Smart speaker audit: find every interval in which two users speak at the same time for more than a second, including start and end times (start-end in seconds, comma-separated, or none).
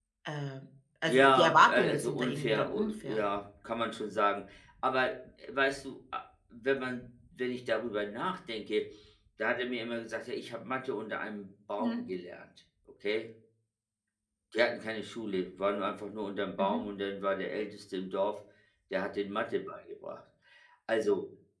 1.1-3.2